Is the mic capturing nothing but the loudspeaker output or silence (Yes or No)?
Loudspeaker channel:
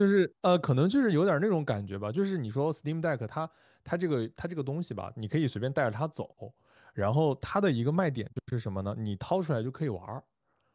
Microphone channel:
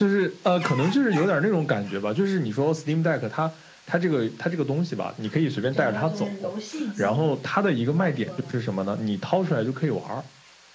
No